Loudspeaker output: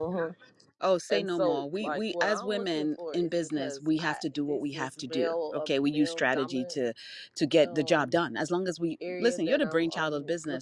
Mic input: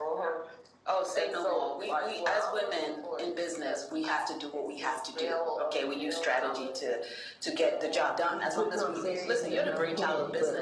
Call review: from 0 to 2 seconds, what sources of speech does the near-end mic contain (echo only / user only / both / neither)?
echo only